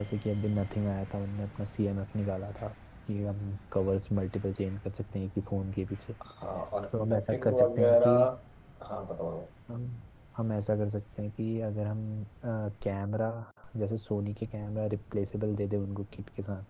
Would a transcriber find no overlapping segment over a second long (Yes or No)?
No